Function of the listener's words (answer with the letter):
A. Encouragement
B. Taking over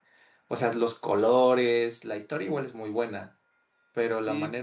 A